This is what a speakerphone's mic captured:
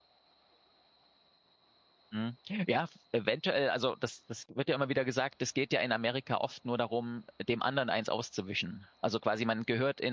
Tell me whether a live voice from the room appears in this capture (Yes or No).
Yes